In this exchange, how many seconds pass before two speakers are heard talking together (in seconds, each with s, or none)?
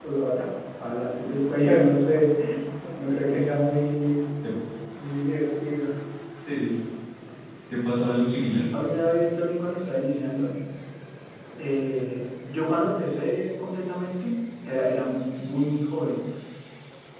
none